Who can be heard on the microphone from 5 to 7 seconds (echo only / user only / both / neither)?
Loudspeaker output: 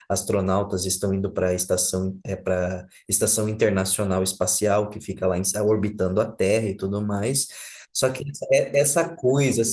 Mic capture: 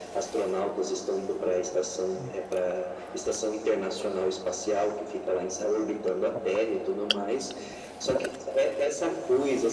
echo only